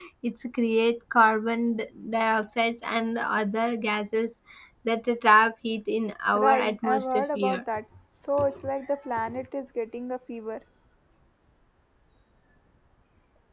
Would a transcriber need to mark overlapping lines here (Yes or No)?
Yes